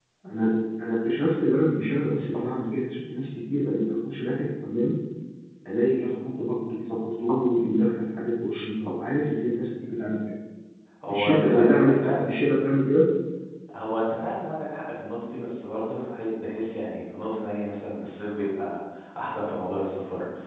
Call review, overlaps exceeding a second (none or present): present